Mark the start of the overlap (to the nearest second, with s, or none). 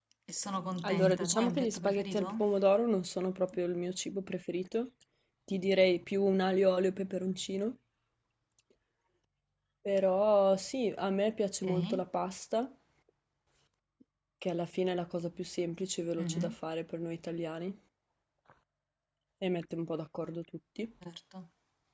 1 s